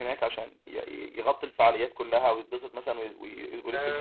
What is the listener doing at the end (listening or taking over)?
taking over